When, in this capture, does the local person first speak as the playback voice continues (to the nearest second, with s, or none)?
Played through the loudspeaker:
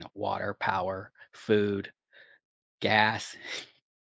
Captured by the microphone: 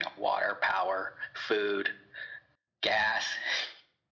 none